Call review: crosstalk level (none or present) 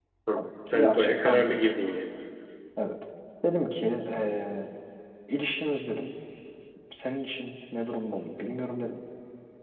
present